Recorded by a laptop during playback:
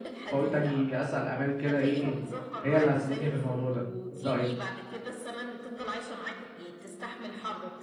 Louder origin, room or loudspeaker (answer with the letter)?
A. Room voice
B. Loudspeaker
A